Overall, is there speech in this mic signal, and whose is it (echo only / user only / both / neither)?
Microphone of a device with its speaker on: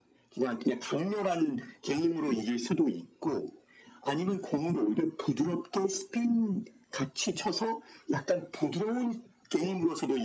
echo only